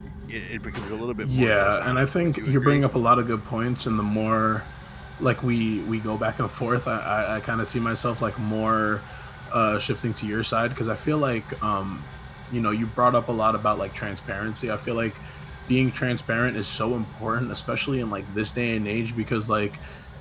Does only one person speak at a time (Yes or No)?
No